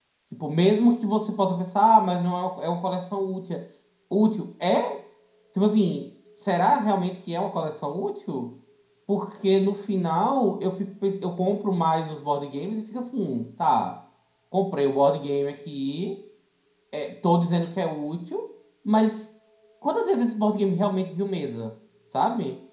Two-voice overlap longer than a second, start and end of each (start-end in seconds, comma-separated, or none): none